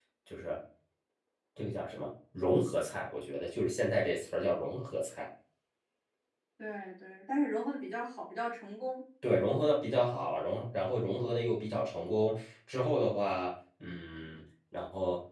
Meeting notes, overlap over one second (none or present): none